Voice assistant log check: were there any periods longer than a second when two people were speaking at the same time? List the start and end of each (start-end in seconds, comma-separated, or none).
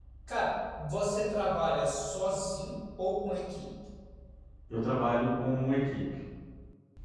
none